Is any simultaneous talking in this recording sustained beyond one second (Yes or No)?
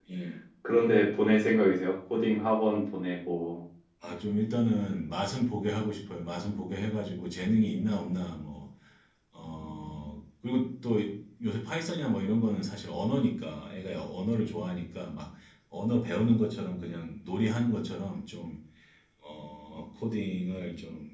No